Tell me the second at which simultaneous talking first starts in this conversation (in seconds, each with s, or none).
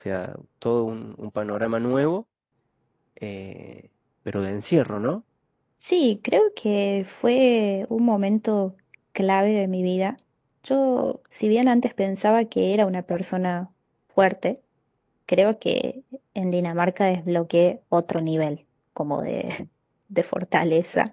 none